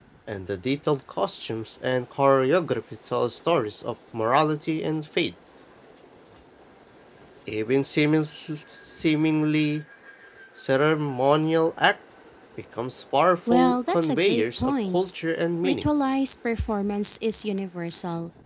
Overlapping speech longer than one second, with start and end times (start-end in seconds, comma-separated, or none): 13.5-15.0